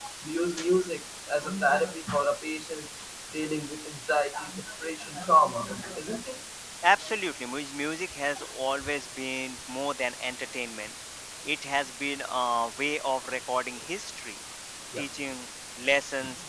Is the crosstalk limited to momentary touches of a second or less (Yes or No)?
Yes